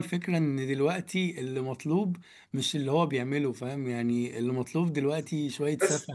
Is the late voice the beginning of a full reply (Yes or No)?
No